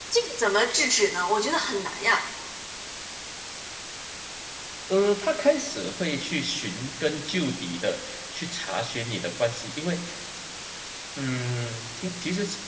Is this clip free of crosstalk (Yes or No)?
Yes